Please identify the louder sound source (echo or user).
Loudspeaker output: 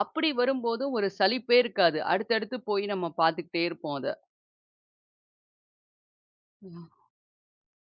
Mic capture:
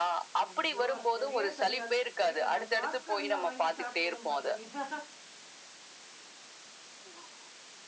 echo